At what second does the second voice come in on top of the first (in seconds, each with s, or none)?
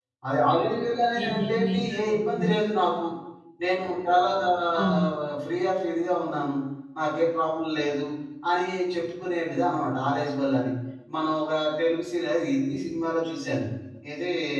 1.2 s